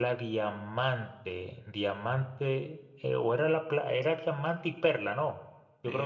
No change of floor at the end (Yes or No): No